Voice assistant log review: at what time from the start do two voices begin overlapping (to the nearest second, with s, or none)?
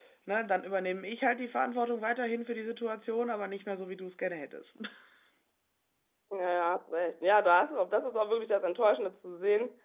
none